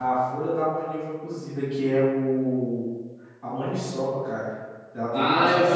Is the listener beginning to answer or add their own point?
Yes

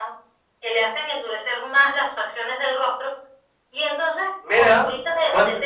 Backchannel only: No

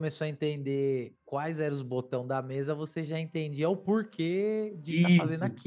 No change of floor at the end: No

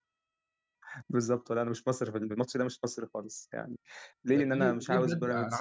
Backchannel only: No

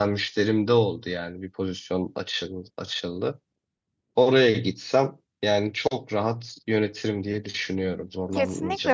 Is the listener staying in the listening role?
No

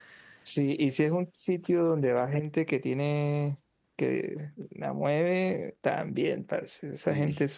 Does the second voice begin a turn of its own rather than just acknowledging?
No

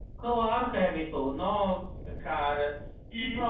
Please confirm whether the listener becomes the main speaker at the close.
Yes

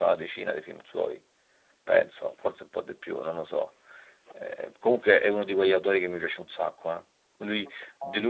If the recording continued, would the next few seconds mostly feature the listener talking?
No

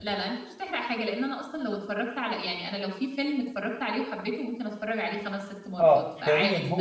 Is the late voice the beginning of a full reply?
Yes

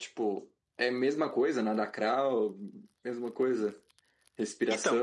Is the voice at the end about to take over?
Yes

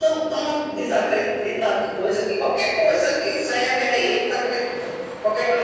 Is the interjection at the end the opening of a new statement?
Yes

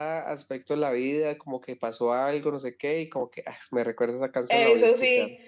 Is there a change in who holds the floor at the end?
Yes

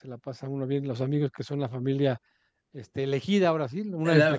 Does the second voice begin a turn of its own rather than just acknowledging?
Yes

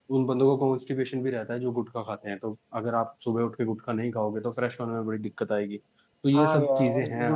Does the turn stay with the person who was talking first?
No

